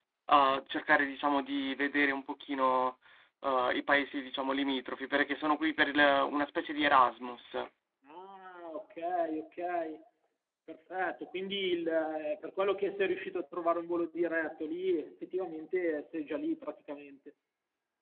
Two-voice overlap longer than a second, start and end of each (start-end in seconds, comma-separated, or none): none